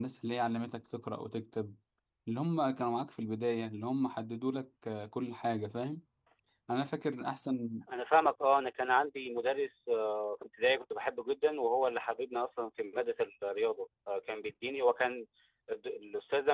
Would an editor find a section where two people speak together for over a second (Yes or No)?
No